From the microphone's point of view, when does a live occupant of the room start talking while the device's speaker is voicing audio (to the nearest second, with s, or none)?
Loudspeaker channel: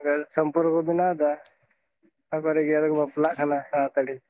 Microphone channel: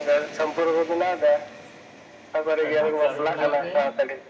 3 s